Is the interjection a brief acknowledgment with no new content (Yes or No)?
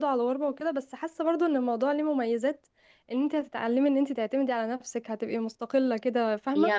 No